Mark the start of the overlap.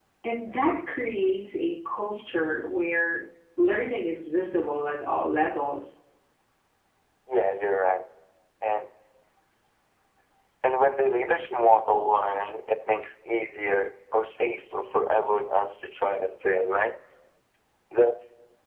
none

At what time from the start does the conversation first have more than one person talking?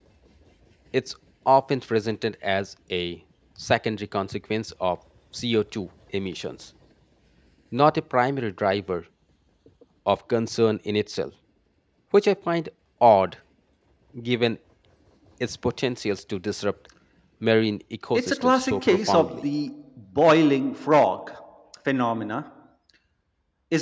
18 s

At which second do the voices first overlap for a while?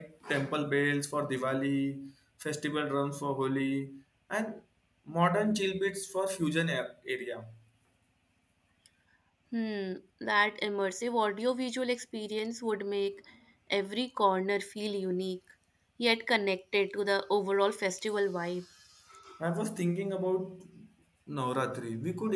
none

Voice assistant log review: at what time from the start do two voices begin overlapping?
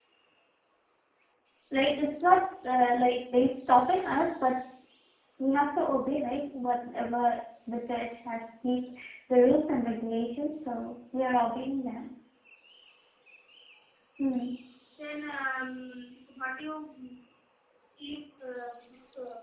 none

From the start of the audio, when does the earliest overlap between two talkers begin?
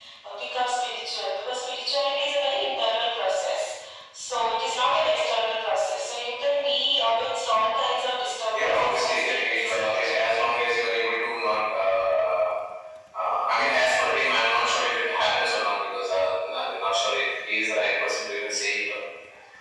9 s

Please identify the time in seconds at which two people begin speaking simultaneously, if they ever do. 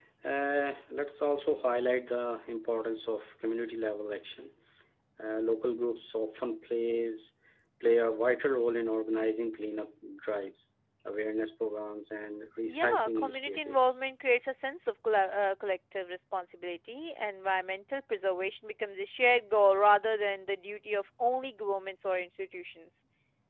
13 s

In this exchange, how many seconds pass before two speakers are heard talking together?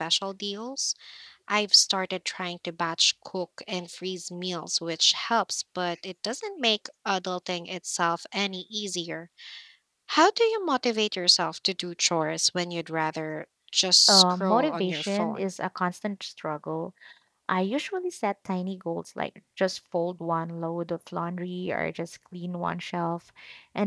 14 s

